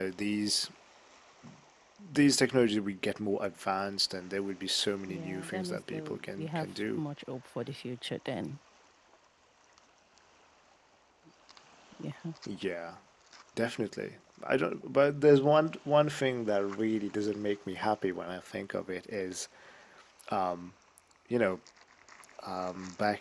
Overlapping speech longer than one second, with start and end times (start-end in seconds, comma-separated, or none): 5.0-7.0